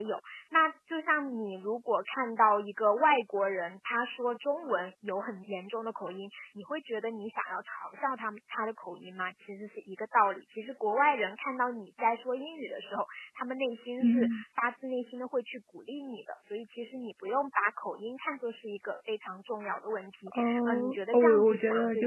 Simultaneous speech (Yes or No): Yes